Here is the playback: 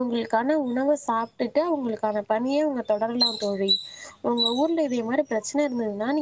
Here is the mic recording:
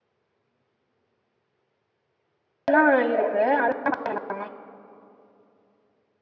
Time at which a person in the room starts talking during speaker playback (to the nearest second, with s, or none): 3 s